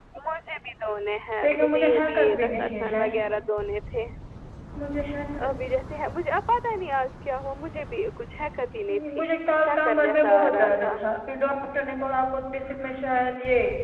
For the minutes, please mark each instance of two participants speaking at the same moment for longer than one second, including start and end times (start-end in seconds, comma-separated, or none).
1.4-3.0, 9.6-10.9